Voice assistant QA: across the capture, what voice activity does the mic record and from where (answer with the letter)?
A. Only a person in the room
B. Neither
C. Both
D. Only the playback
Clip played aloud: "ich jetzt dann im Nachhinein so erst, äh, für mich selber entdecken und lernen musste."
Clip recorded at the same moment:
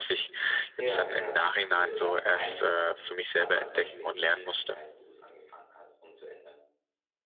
C